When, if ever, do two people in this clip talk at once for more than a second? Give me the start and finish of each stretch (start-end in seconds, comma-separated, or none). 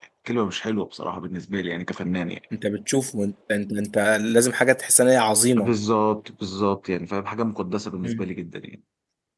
none